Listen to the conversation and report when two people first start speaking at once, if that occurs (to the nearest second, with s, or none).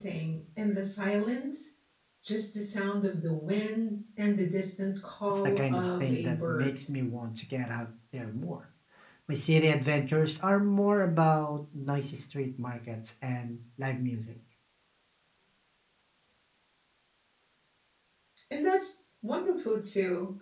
5 s